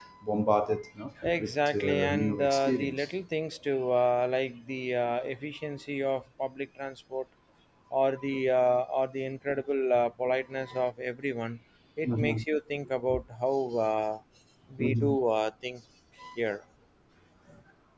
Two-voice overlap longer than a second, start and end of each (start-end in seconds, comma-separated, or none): 1.4-3.1